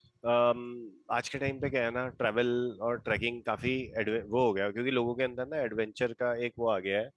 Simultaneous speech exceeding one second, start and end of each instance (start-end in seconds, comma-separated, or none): none